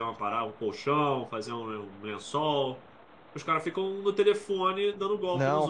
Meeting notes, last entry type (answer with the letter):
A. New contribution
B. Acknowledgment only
A